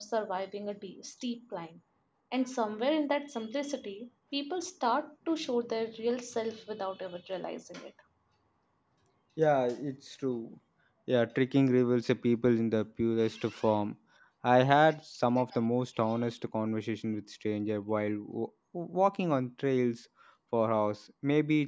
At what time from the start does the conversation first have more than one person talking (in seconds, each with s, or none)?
none